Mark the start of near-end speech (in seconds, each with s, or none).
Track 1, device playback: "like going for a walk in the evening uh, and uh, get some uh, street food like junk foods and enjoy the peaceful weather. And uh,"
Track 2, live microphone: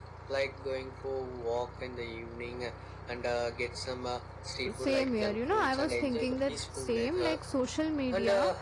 4.7 s